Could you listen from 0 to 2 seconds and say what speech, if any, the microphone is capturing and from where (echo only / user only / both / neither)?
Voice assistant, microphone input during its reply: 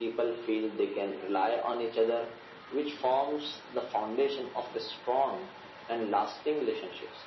echo only